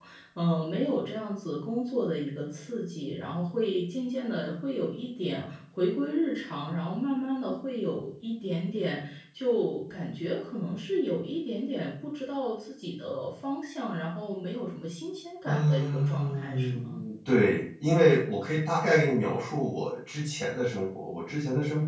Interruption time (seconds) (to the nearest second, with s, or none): 15 s